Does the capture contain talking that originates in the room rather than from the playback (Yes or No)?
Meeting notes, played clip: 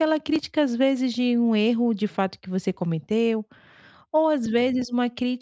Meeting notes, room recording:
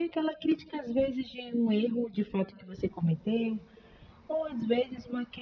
No